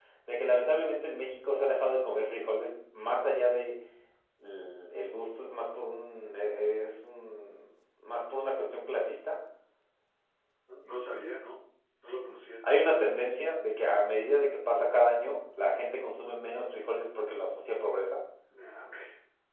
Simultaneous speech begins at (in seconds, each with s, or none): none